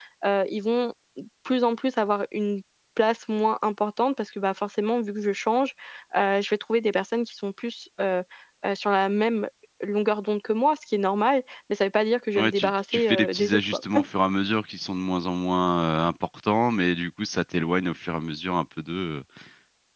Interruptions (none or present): present